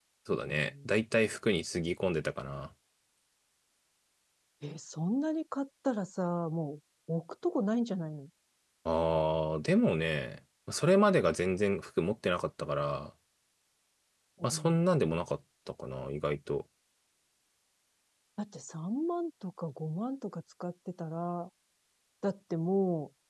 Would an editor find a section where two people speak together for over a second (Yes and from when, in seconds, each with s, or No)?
No